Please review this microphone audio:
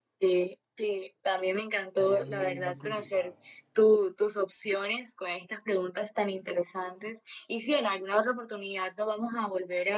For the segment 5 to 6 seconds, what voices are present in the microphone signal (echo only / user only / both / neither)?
echo only